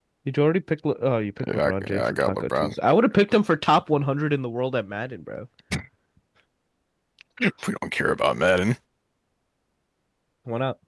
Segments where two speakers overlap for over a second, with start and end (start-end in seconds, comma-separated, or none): 1.5-2.7